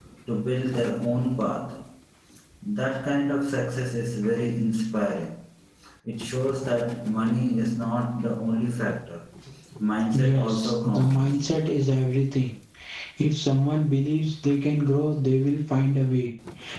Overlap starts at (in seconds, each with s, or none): 10.2 s